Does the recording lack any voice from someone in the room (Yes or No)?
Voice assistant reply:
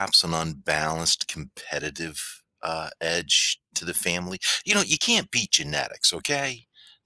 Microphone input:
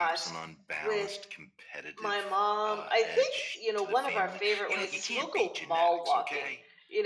No